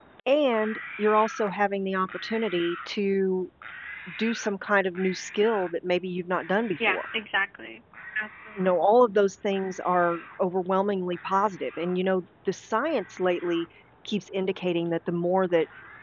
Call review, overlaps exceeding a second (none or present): none